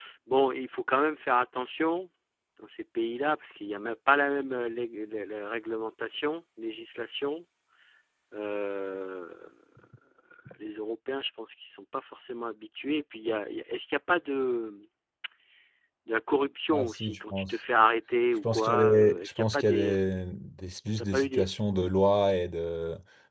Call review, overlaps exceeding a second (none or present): present